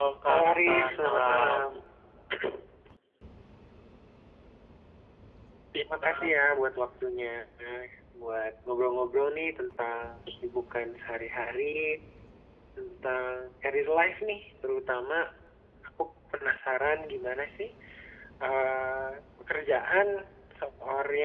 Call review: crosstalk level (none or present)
present